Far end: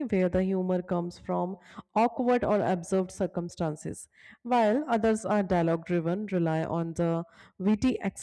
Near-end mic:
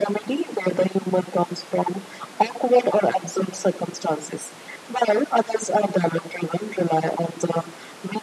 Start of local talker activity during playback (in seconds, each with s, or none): none